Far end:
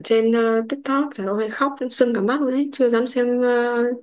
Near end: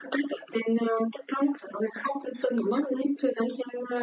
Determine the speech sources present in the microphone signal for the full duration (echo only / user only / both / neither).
echo only